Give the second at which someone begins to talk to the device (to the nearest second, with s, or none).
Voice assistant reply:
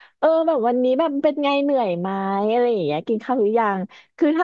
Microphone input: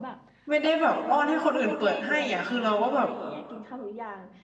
0 s